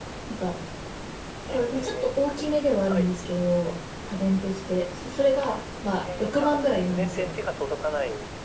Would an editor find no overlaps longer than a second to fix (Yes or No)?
No